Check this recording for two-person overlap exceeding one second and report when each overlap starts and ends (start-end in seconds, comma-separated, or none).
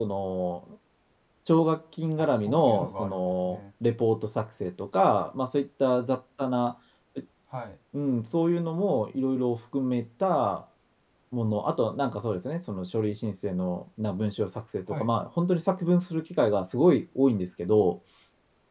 2.4-3.6